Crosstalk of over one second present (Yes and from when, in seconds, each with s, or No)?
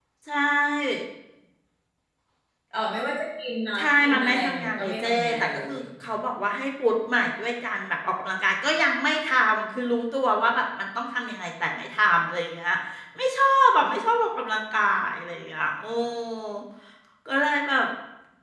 Yes, from 3.8 s